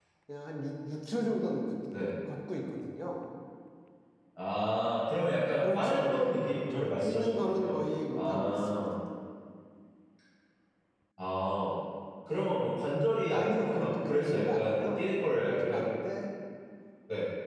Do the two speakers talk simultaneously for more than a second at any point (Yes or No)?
Yes